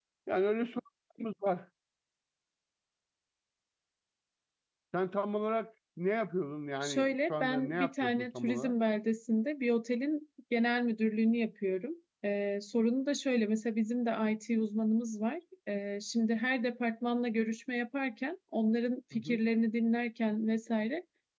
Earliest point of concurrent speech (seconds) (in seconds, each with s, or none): 6.8 s